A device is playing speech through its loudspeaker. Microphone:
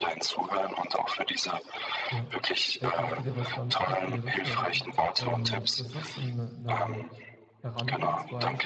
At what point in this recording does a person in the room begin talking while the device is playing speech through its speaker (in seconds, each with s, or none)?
2.1 s